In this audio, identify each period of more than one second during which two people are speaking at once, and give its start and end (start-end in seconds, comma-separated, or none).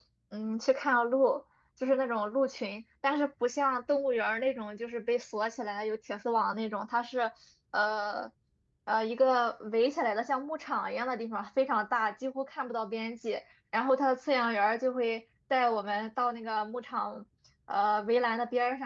none